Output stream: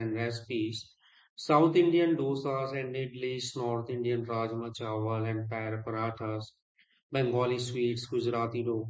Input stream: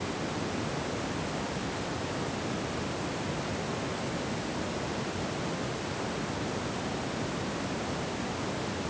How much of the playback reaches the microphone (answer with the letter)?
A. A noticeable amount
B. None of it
B